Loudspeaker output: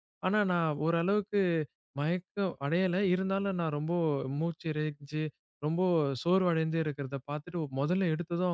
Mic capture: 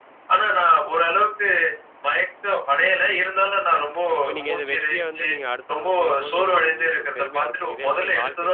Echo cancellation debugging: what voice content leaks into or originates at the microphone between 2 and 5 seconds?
both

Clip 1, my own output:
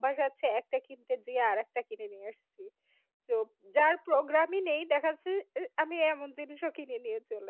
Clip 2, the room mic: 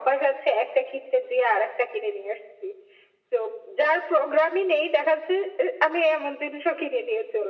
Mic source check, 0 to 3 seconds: echo only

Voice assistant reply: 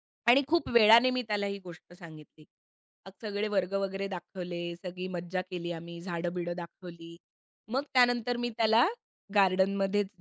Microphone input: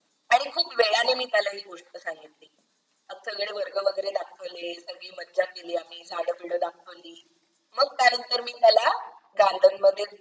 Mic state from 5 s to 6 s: echo only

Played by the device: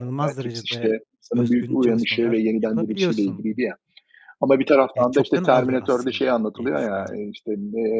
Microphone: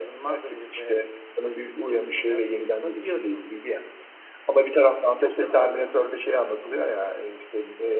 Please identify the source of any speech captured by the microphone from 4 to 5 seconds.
echo only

